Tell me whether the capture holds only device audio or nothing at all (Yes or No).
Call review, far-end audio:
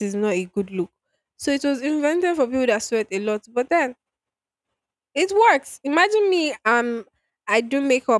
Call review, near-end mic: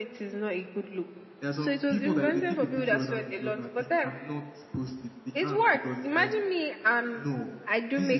No